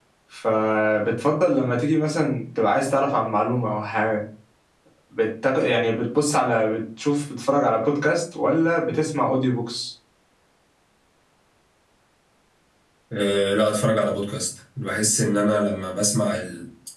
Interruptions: none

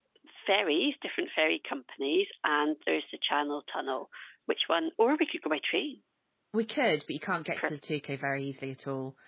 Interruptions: none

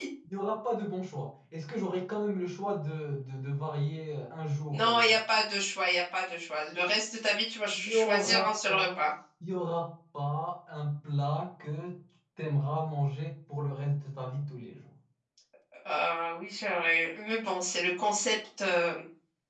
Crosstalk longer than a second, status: present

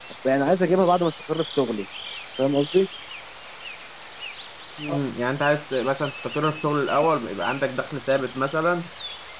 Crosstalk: none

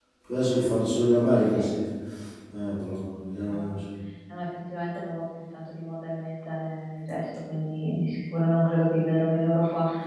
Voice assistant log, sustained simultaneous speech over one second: none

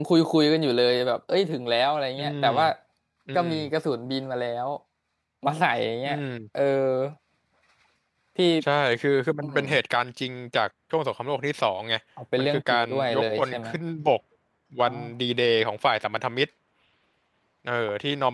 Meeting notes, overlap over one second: present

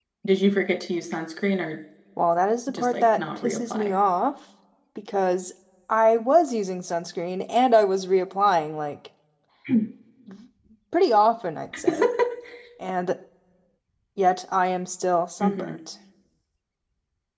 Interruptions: present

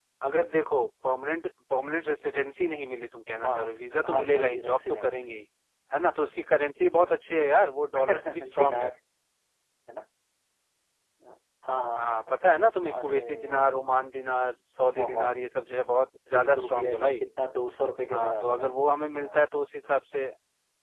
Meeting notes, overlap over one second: present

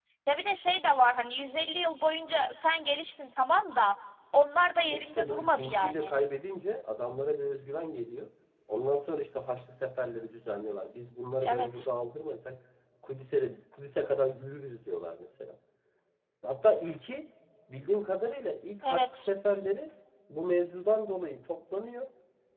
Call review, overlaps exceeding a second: present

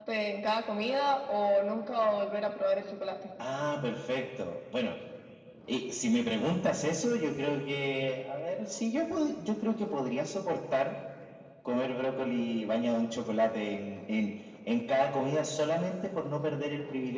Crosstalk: none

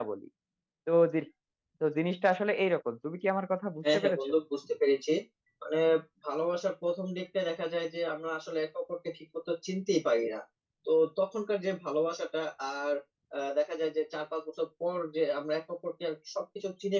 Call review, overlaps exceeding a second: none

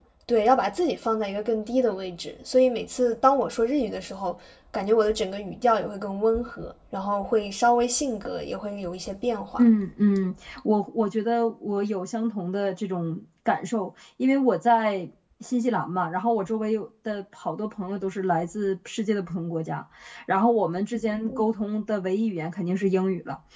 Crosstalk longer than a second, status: none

